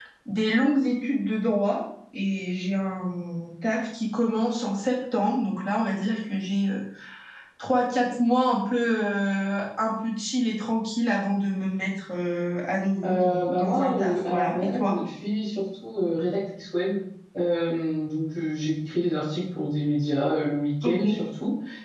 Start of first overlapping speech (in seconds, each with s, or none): 13.0 s